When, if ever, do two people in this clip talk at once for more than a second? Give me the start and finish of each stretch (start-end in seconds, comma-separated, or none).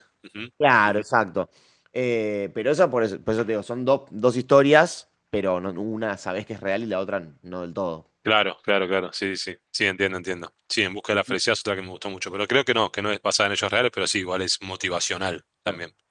none